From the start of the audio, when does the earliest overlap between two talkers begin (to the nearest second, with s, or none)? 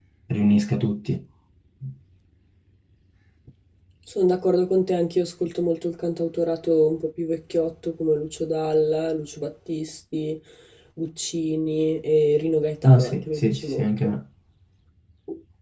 13 s